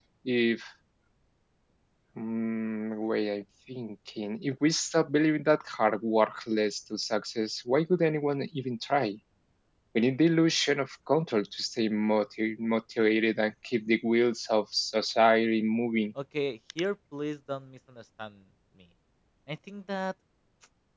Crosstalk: none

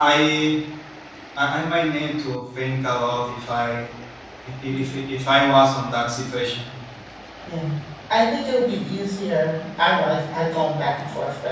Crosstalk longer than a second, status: none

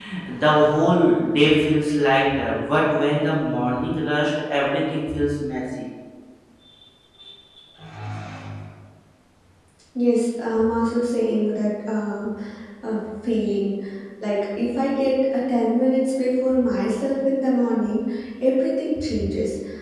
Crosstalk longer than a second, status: none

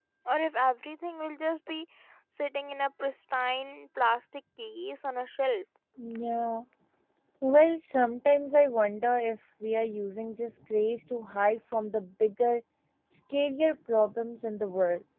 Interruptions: none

